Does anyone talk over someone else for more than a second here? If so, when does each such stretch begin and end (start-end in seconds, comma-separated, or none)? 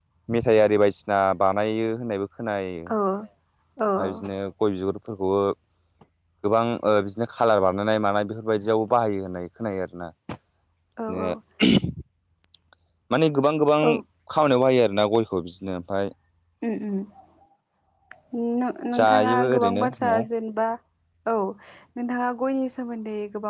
18.9-20.2